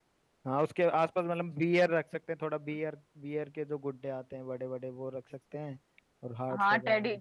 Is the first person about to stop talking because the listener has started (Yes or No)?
Yes